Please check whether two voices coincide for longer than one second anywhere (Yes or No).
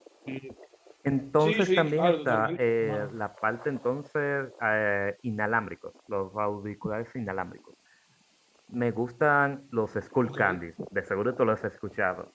Yes